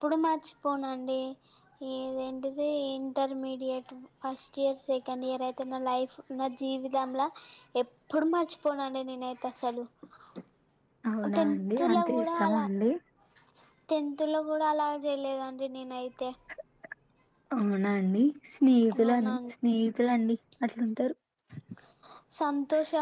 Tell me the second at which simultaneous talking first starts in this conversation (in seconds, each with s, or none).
11.4 s